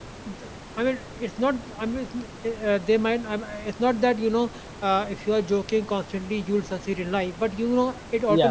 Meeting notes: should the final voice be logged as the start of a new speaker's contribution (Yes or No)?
No